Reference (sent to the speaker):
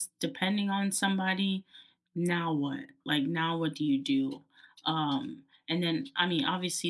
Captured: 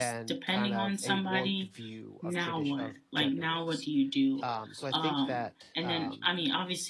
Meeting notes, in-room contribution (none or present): present